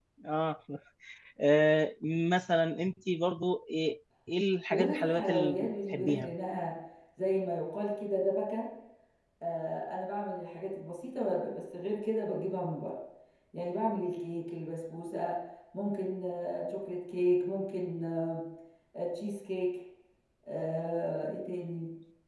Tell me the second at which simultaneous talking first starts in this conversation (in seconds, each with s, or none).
4.7 s